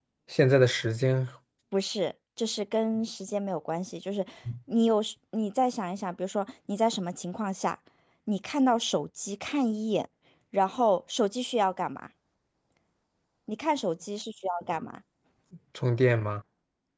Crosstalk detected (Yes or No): No